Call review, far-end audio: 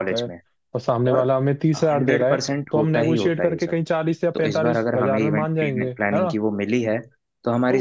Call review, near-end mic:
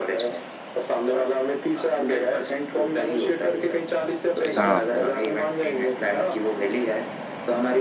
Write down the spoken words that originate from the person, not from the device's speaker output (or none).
हाँ वही